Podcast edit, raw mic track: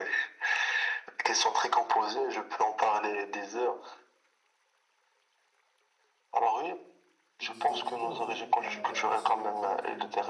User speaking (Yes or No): Yes